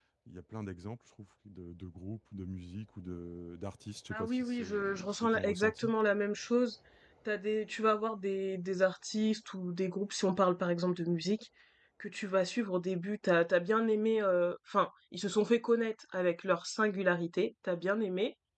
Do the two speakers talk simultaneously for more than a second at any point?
Yes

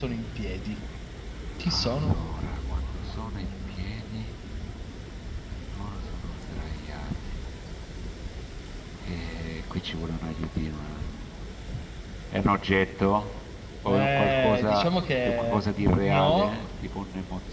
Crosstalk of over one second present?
Yes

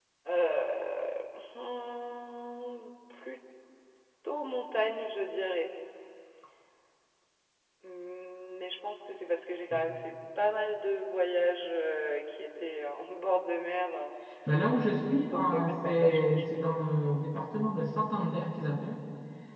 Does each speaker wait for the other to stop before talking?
No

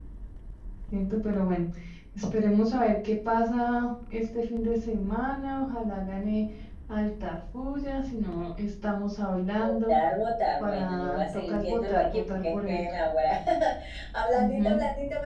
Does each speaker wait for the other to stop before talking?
No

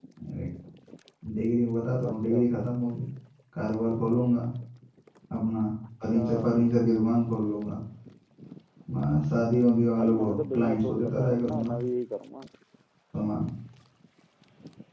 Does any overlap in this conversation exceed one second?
Yes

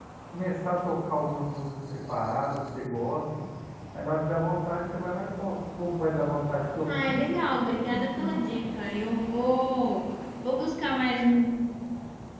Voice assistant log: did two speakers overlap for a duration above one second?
Yes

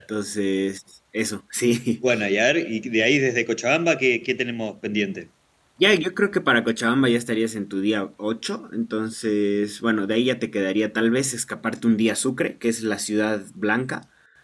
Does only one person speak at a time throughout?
Yes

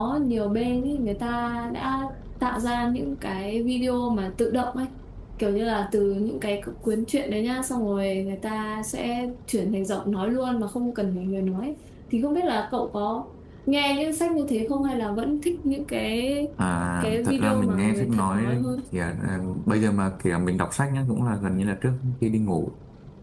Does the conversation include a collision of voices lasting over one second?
Yes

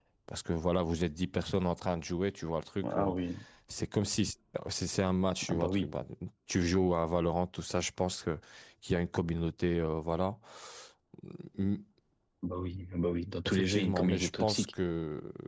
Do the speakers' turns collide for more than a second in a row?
Yes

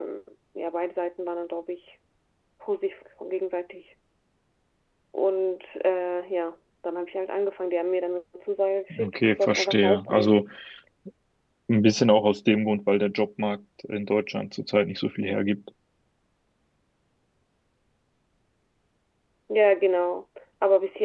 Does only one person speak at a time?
No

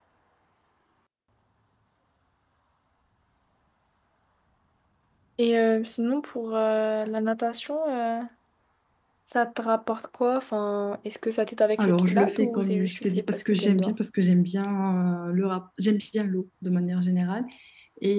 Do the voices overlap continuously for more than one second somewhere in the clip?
Yes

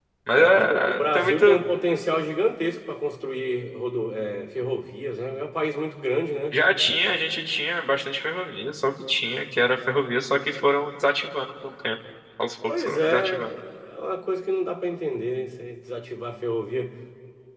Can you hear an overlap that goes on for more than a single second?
Yes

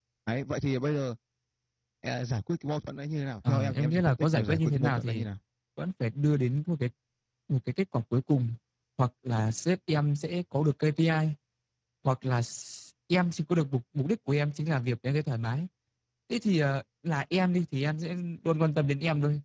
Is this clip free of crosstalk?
No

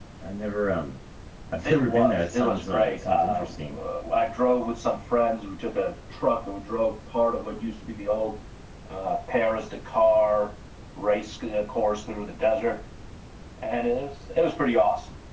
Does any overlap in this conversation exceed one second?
Yes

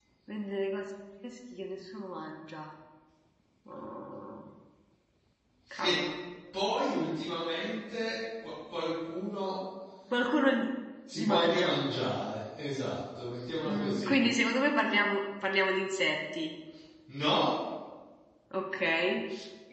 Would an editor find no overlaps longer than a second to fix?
Yes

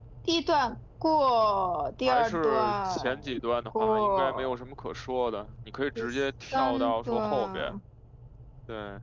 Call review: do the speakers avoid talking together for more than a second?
No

